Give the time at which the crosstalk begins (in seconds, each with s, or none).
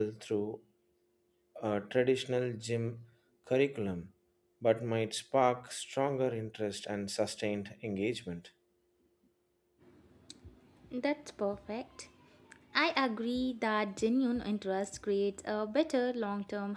none